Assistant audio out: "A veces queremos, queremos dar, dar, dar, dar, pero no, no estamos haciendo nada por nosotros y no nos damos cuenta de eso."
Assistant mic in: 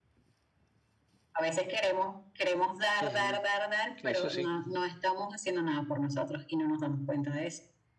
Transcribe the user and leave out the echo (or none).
ujú, Eso sí.